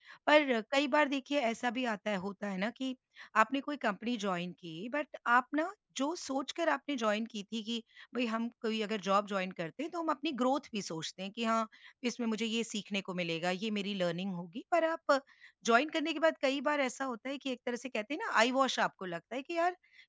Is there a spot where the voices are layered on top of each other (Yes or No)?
No